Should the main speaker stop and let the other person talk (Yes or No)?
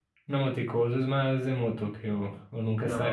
Yes